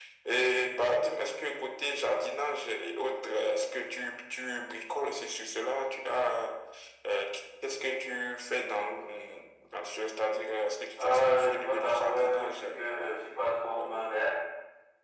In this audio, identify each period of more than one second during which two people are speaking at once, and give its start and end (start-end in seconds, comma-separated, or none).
11.0-12.7